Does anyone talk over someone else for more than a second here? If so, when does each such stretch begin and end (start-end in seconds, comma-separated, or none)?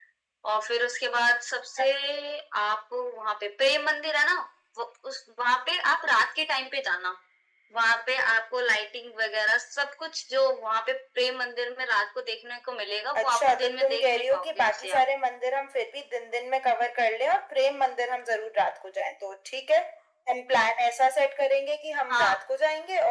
13.2-15.0